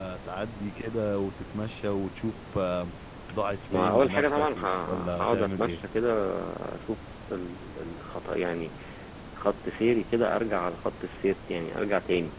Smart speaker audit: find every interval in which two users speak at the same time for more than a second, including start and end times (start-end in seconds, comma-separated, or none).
3.7-5.7